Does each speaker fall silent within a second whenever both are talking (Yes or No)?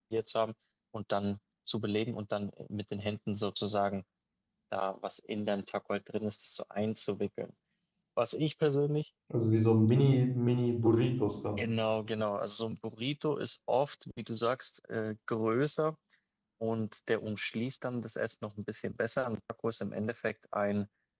Yes